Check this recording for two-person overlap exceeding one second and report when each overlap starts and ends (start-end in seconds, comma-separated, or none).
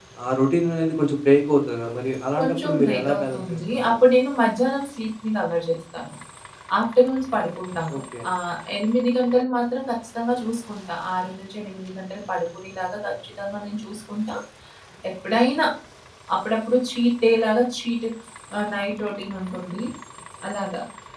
2.4-4.1